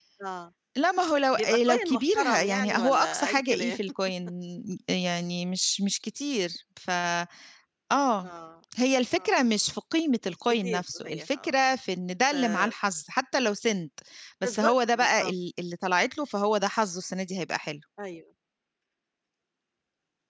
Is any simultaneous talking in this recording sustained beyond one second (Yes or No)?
Yes